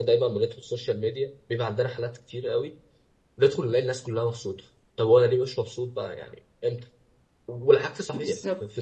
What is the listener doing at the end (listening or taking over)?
listening